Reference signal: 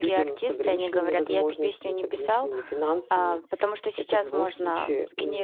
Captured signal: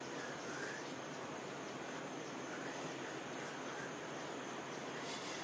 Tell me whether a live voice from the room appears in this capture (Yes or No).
No